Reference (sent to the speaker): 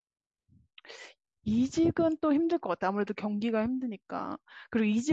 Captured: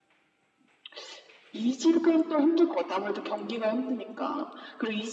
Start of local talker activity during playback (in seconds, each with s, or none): none